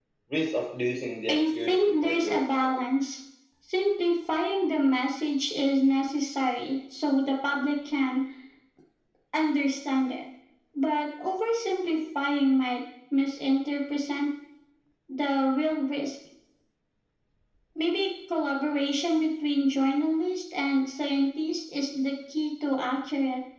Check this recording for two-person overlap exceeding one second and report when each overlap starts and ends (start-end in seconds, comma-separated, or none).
1.3-2.8